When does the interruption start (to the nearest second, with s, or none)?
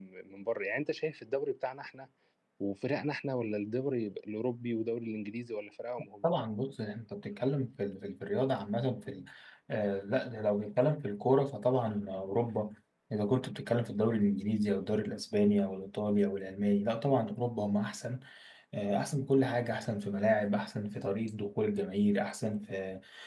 none